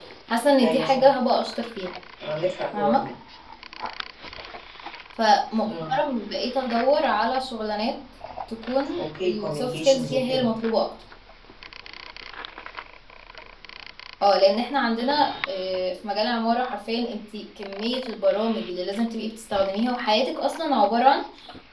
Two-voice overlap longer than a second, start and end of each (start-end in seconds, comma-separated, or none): 9.0-10.5